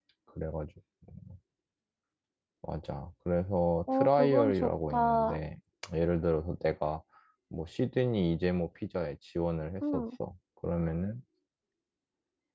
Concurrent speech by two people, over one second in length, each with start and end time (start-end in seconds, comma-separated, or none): 3.9-5.4